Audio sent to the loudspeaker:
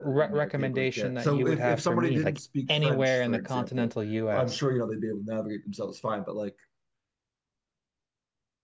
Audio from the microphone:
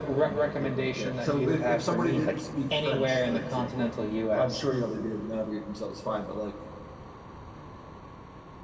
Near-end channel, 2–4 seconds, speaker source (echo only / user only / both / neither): echo only